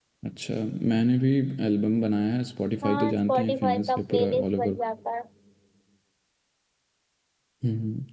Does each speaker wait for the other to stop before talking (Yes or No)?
No